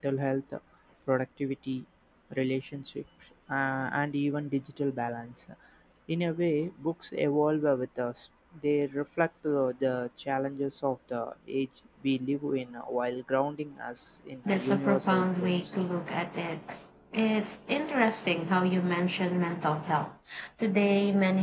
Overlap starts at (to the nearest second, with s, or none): 14 s